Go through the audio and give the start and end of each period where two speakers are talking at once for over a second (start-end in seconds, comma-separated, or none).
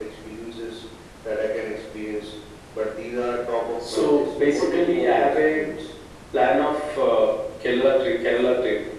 3.8-5.6